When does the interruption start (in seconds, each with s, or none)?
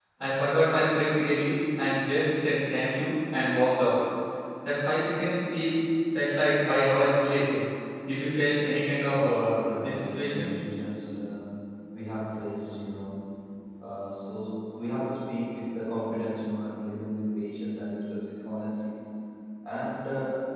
9.1 s